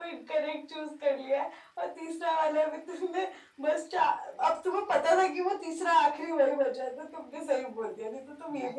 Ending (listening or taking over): taking over